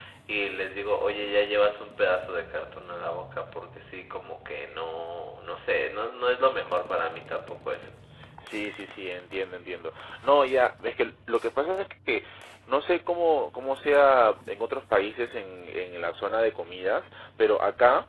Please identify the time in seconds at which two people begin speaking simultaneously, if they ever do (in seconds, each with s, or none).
none